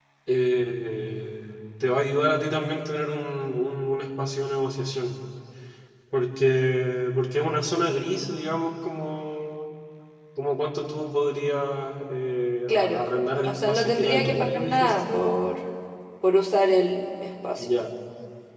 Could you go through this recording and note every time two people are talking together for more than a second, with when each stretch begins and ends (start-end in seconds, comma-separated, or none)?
13.4-15.2